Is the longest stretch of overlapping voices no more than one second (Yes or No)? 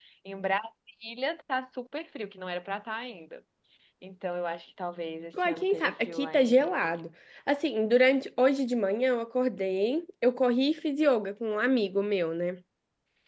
No